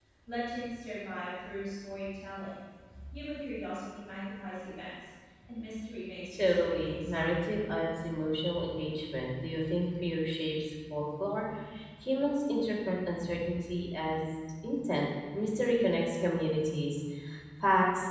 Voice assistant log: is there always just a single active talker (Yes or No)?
No